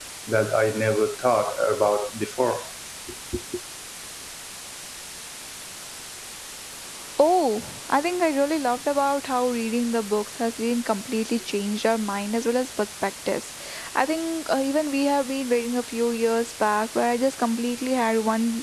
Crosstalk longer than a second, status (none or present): none